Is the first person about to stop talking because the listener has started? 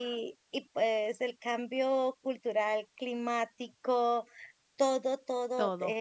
No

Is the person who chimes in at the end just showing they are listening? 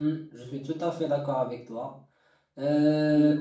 Yes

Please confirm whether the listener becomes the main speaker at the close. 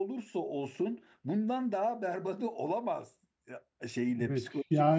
Yes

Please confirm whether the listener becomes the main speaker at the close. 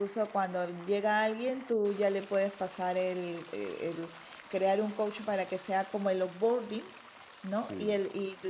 No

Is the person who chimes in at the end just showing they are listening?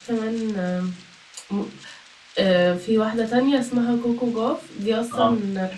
Yes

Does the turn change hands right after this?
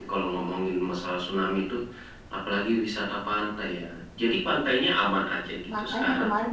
Yes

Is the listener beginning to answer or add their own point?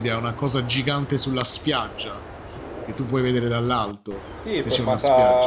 Yes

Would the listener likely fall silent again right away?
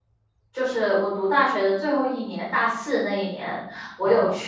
Yes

